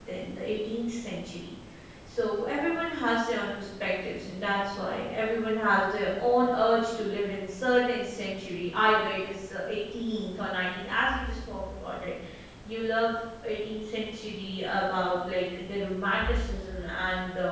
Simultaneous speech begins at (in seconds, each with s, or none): none